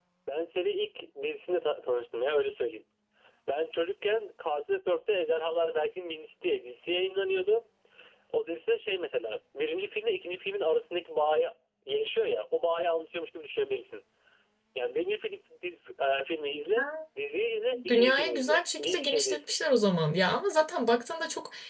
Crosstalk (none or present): present